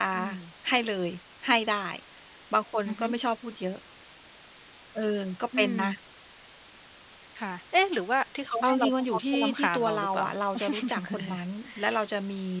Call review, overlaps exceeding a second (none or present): present